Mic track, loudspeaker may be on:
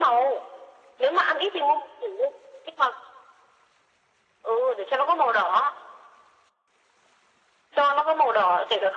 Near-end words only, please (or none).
none